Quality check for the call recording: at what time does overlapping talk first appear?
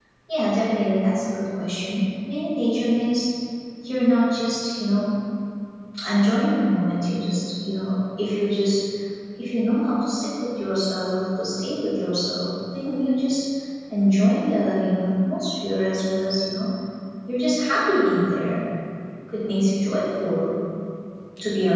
none

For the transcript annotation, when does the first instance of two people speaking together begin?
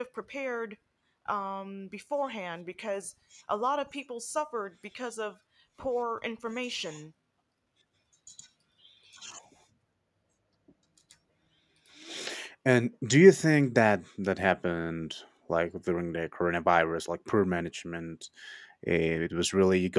none

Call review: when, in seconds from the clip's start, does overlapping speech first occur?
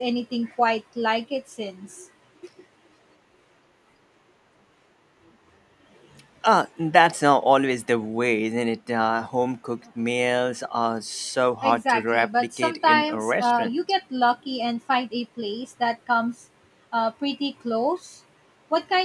12 s

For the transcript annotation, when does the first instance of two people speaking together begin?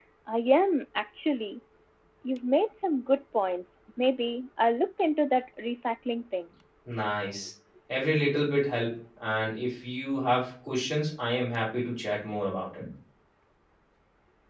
none

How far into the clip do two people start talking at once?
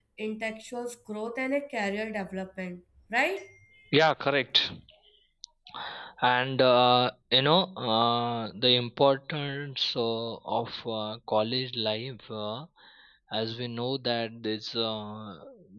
none

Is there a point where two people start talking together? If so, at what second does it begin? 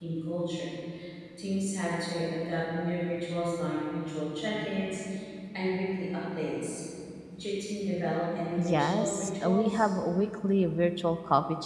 9 s

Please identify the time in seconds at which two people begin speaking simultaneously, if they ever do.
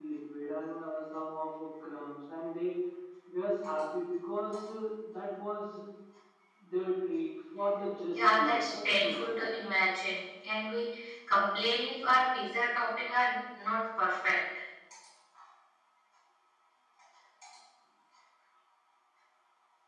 8 s

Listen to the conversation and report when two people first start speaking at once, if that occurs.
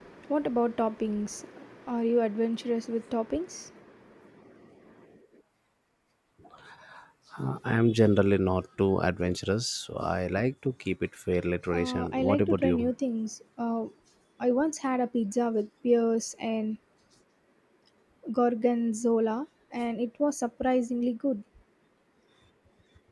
12 s

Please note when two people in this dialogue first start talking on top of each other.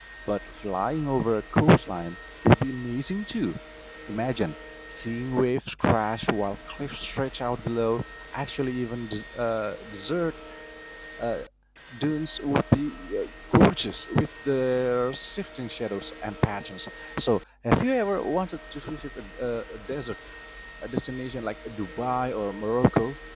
none

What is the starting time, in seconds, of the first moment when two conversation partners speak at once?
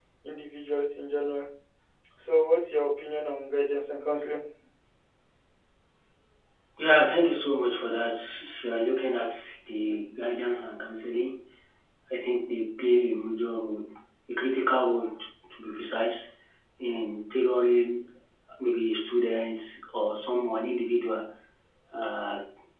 none

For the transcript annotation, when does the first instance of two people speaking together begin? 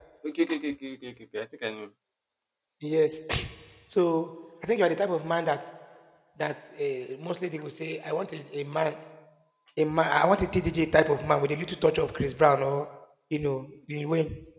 none

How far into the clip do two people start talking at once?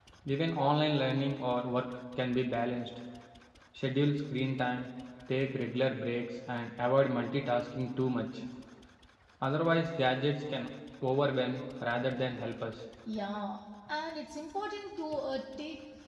none

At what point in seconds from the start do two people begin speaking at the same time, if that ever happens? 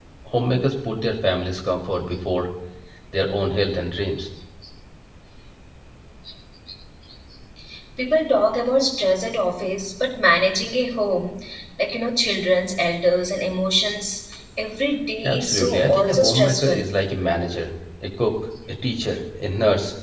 15 s

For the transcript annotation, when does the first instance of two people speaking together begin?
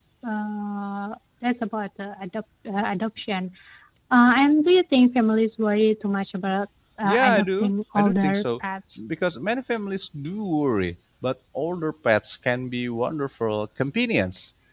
7 s

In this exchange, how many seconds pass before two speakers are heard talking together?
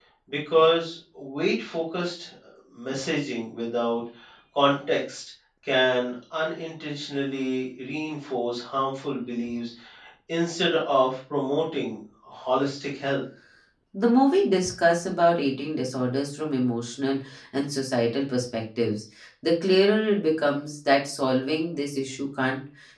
none

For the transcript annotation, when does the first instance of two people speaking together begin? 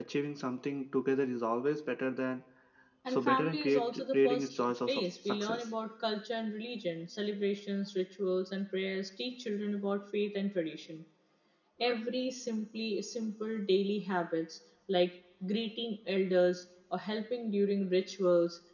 3 s

